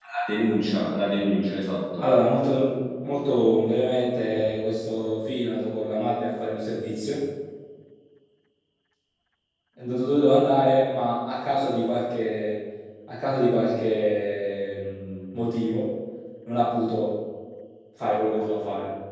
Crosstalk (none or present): none